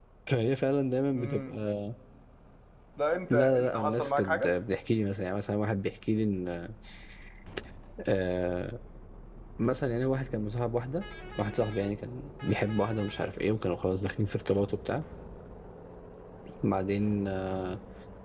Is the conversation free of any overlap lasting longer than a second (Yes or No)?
No